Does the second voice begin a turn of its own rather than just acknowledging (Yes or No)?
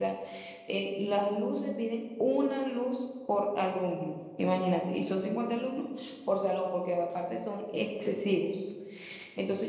No